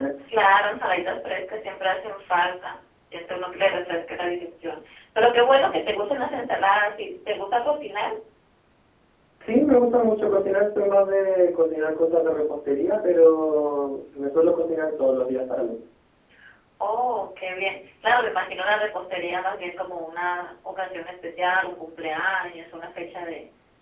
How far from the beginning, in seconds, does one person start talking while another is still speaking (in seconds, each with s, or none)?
none